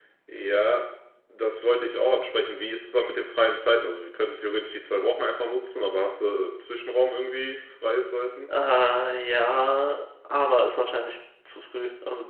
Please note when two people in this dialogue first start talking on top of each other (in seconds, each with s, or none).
none